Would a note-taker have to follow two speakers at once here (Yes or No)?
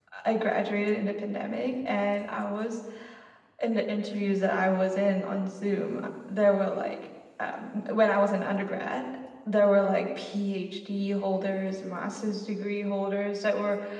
No